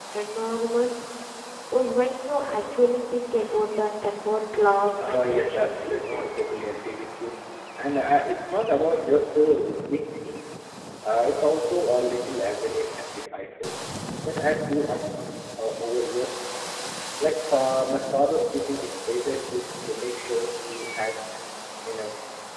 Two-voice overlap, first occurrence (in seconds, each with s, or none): 5.0 s